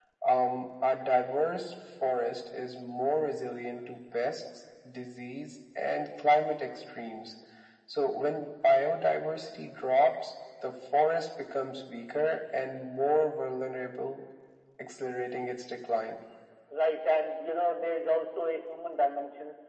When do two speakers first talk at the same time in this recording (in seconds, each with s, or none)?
none